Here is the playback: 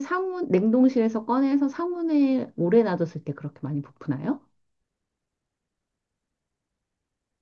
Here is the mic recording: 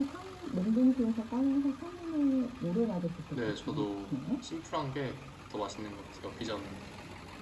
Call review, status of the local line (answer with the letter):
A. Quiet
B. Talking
B